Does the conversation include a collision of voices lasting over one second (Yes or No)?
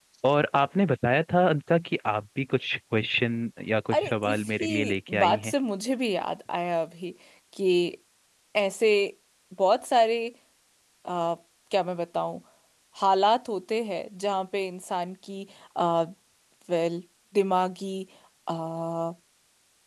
Yes